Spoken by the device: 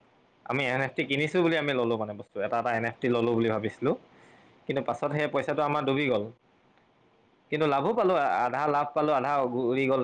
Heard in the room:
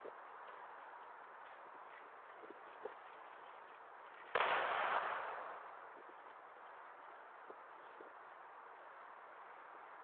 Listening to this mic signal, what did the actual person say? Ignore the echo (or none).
none